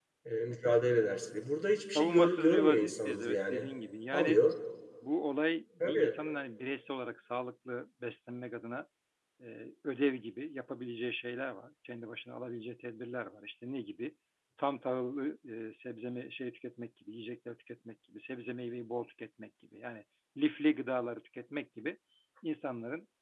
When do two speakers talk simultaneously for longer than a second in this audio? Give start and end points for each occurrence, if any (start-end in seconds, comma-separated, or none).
1.8-3.6